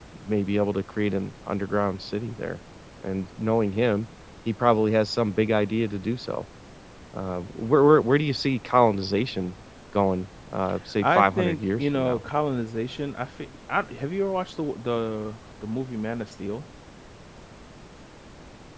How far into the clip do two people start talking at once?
11.0 s

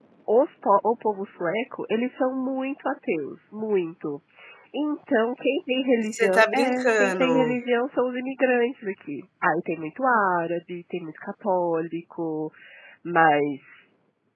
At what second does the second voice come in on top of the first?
6.1 s

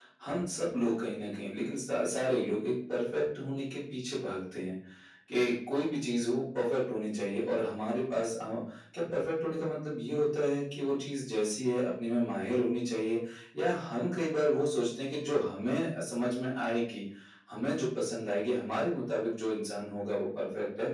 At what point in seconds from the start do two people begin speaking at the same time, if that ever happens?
none

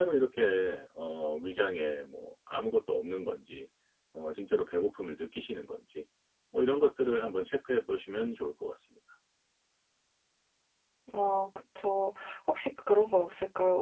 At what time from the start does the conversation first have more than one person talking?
none

